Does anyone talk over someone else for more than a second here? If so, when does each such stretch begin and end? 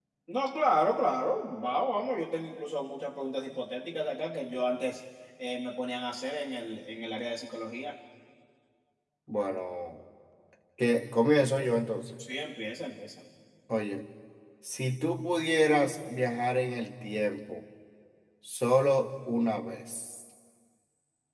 none

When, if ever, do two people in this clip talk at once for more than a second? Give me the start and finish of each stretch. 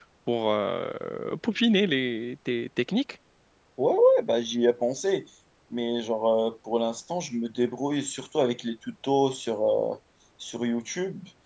none

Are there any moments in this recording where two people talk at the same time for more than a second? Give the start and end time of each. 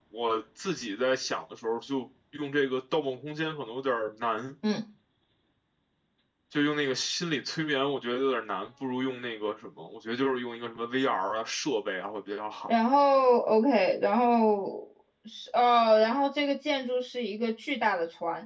none

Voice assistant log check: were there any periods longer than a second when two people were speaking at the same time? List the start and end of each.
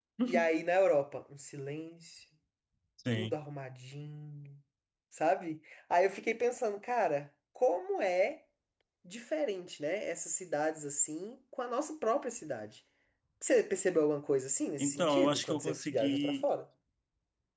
14.8-16.5

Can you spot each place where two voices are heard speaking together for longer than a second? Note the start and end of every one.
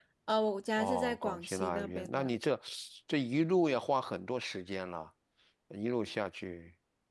0.8-2.4

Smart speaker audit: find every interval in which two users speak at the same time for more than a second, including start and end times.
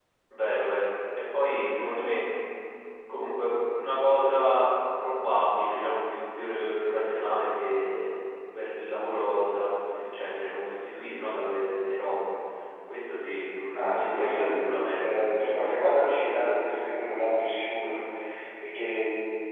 13.8-15.2

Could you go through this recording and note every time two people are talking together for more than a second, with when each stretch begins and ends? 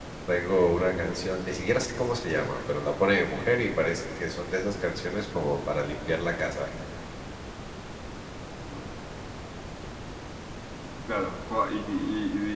none

